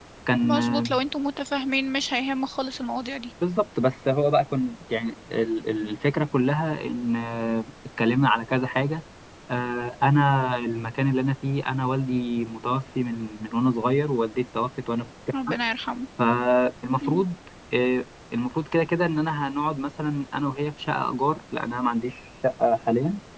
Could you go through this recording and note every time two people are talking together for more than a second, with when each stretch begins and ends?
none

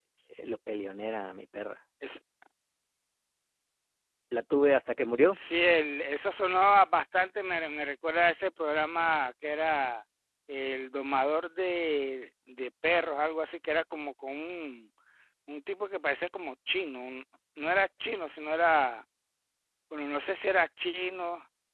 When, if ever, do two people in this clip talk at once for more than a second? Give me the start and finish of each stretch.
none

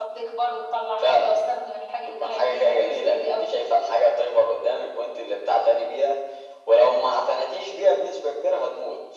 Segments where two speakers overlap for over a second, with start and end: 2.0-3.5

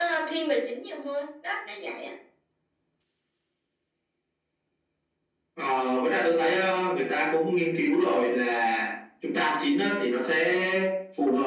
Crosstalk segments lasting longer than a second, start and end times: none

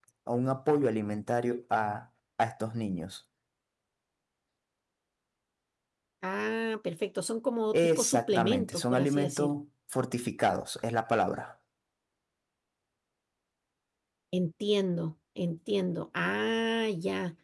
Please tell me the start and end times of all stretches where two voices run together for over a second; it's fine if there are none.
7.7-9.5

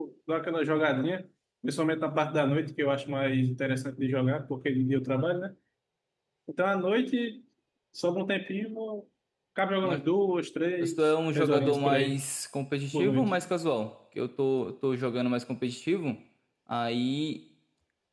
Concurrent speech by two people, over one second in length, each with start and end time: 10.8-12.2

